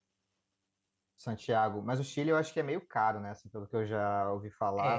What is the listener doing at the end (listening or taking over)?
taking over